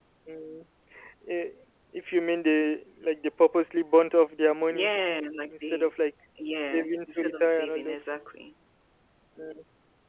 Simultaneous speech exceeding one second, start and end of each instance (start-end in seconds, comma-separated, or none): 6.7-8.0